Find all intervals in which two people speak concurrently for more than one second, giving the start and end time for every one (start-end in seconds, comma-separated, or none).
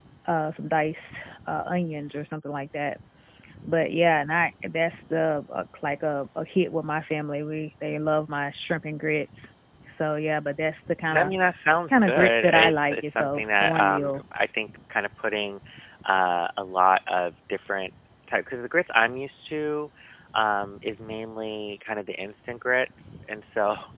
11.9-14.2